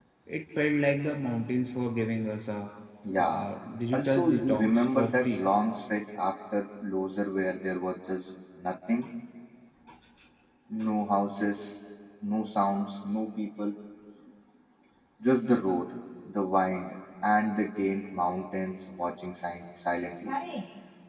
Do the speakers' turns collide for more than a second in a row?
Yes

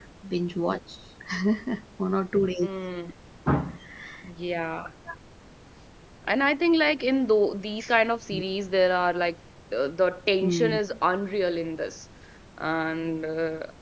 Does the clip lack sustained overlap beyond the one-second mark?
Yes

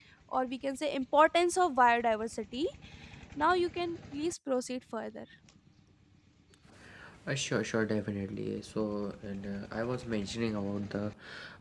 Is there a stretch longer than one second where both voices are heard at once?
No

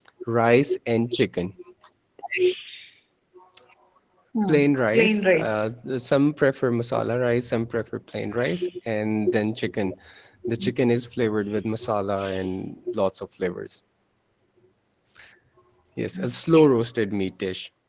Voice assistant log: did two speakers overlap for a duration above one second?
Yes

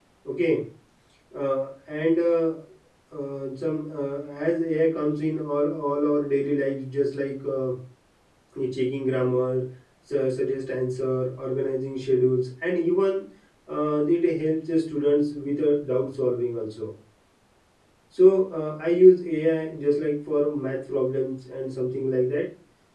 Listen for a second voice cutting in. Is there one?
No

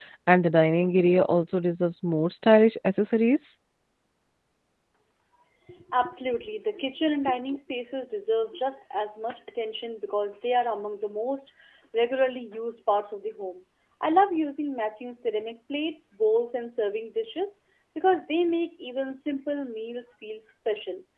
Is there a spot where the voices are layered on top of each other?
No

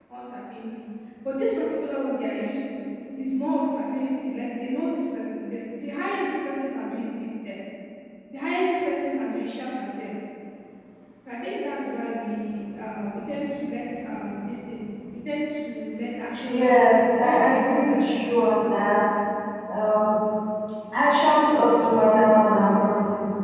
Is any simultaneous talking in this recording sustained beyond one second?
Yes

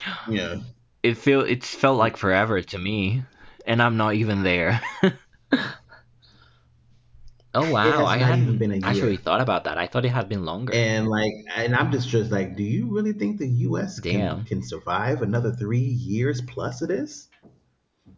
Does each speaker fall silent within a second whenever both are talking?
No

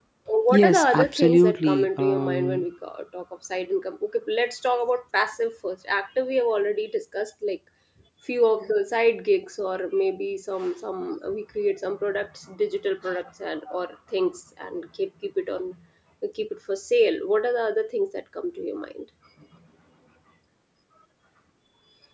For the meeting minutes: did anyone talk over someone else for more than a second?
Yes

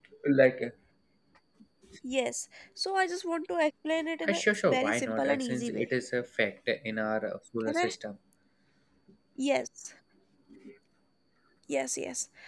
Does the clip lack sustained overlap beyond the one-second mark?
No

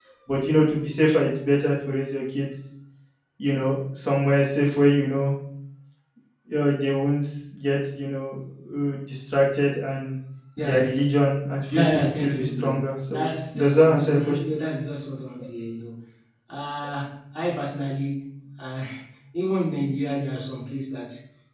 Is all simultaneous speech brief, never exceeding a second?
No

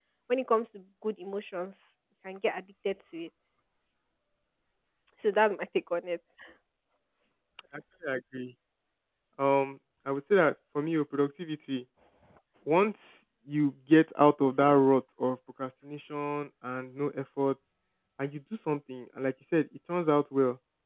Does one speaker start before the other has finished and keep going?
No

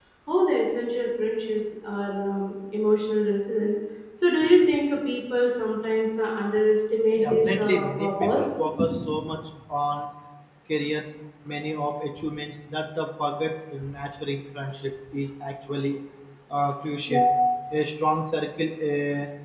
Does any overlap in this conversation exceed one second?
Yes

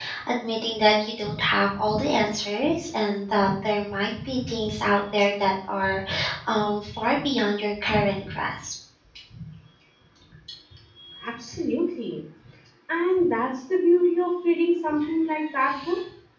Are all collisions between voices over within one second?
Yes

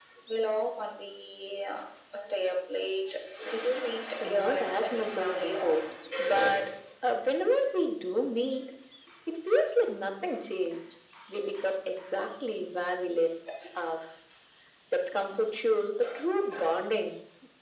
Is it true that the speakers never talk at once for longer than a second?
No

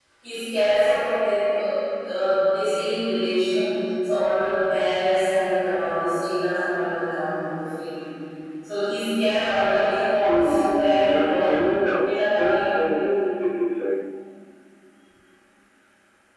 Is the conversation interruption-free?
No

